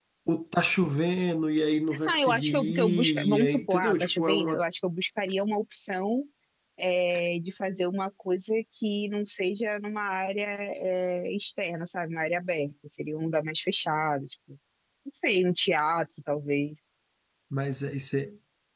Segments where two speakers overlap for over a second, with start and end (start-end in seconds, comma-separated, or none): 2.1-4.6